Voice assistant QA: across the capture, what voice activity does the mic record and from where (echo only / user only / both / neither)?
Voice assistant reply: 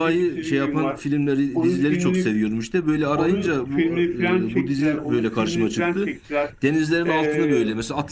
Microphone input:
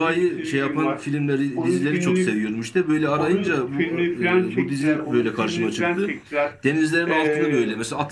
echo only